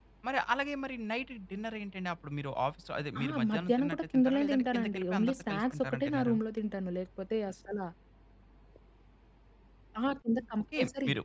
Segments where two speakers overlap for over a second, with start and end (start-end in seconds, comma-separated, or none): 3.2-6.3